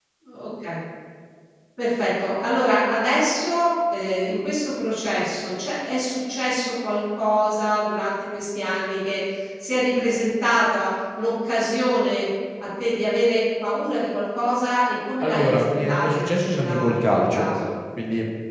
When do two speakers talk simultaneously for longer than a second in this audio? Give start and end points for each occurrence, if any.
15.2-17.5

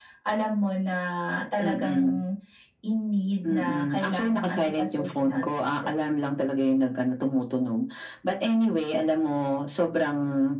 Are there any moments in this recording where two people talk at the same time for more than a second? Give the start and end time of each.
3.4-5.9

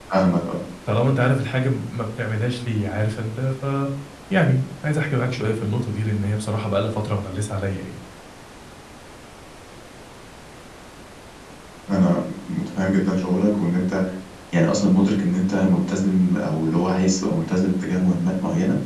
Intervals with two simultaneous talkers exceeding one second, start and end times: none

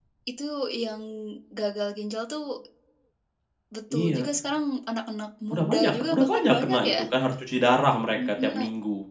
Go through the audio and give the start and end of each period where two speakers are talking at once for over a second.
5.5-7.1

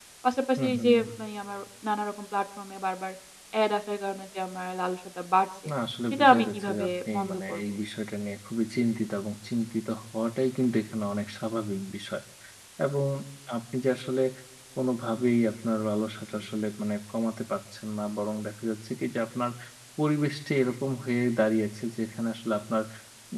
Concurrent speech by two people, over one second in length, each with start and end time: 6.1-7.6

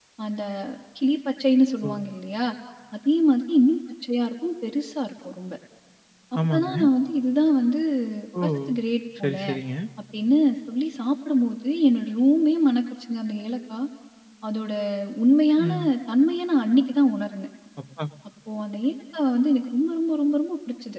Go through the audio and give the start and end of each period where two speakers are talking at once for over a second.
none

